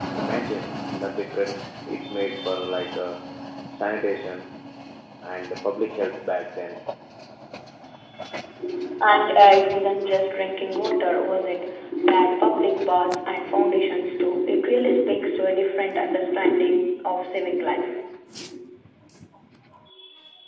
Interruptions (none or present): none